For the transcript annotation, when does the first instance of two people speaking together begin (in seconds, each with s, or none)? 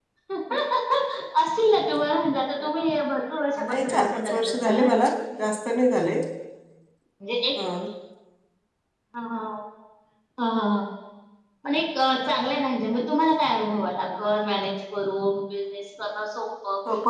3.6 s